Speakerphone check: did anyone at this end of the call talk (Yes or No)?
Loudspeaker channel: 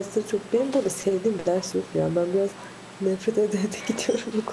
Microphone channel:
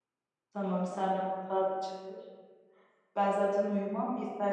Yes